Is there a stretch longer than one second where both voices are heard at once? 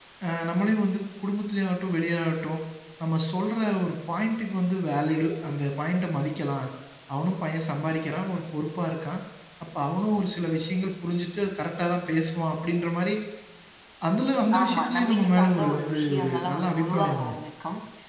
Yes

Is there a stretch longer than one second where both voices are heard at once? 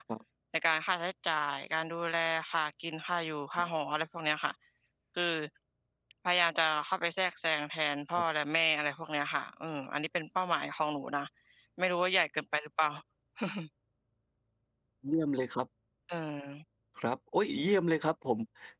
No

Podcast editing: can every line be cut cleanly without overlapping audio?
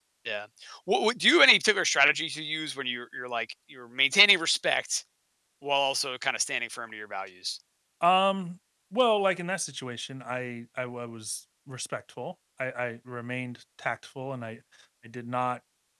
Yes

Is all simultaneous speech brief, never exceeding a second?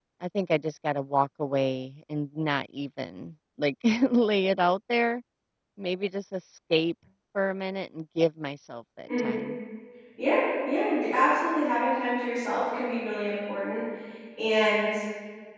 Yes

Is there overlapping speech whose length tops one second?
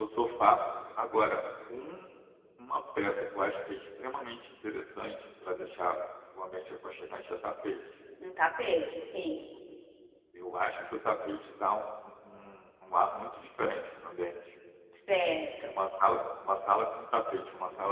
No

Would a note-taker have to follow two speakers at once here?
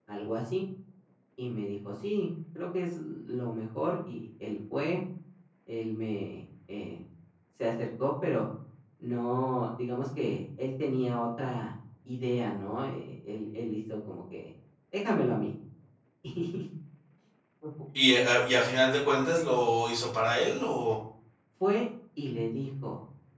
No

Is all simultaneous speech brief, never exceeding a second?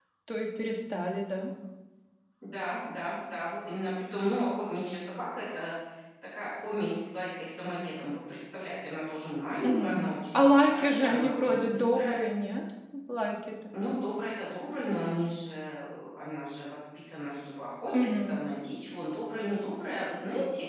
No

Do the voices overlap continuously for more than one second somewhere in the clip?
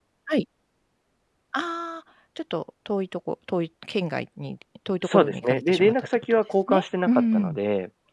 Yes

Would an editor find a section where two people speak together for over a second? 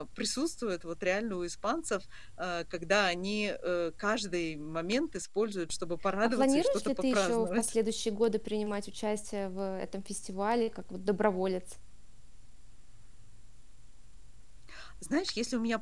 Yes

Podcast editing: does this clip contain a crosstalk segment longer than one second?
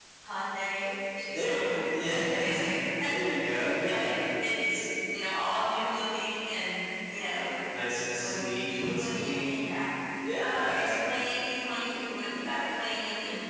Yes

